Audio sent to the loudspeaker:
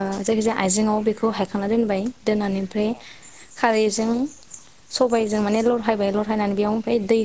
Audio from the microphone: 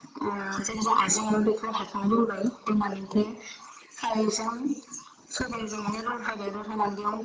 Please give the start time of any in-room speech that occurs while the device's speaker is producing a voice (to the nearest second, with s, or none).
none